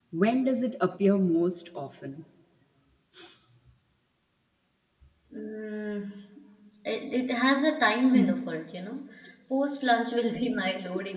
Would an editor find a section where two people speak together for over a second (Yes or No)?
No